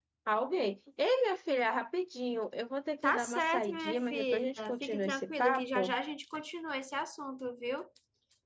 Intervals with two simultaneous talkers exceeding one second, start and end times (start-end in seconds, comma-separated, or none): 3.0-5.9